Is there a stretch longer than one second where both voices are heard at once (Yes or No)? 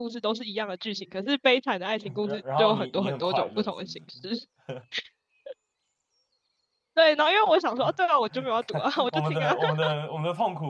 Yes